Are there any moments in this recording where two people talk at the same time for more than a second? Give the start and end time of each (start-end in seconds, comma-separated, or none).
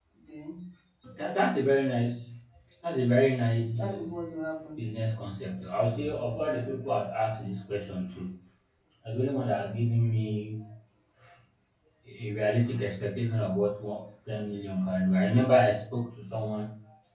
none